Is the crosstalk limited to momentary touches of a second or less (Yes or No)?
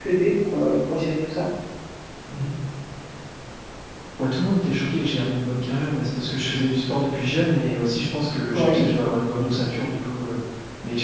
Yes